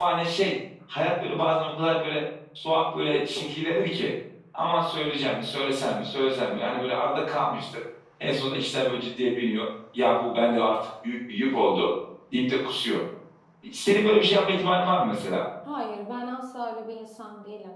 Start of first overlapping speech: none

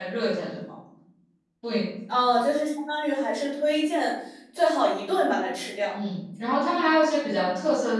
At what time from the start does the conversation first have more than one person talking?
none

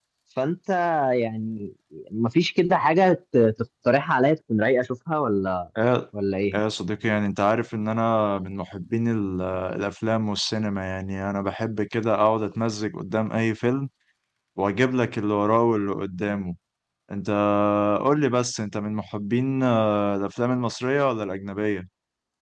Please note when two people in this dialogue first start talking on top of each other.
none

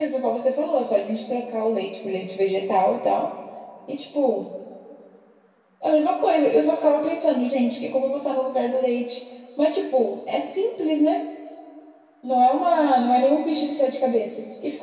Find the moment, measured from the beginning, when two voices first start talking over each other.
none

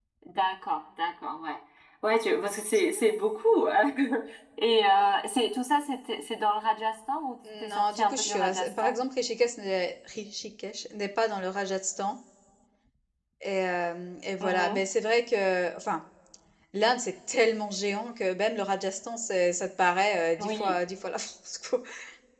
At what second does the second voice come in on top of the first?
7.7 s

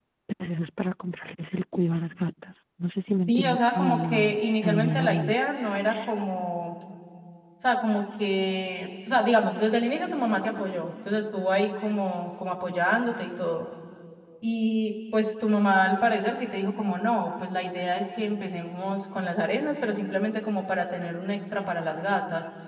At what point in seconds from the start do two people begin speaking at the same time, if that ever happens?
3.3 s

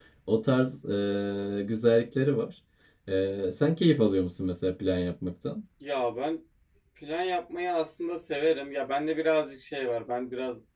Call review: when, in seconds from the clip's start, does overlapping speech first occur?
none

